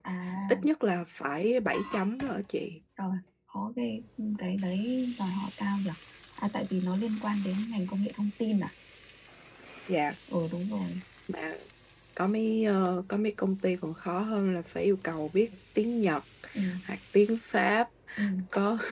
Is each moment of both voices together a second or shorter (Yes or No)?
Yes